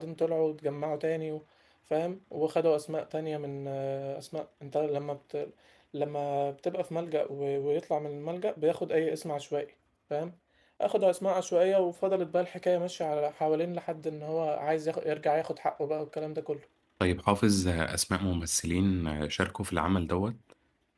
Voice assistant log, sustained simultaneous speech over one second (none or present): none